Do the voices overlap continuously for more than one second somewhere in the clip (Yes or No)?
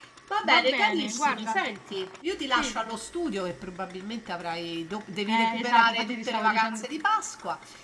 Yes